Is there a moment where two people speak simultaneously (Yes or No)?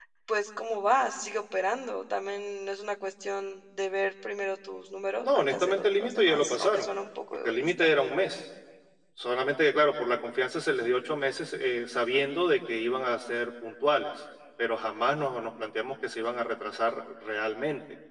Yes